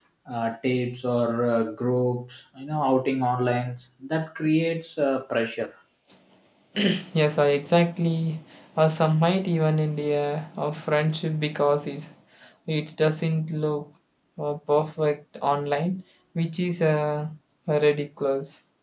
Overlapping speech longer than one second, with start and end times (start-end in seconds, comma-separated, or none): none